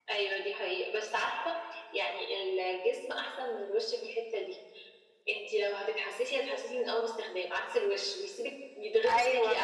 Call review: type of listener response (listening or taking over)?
taking over